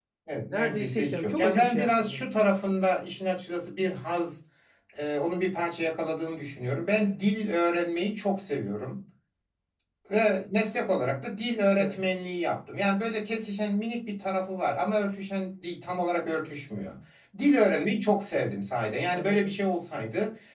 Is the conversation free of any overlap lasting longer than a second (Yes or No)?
No